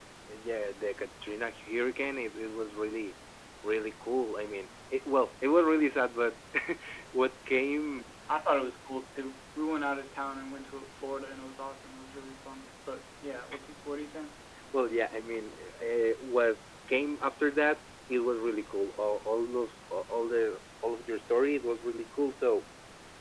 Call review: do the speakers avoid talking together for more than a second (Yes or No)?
Yes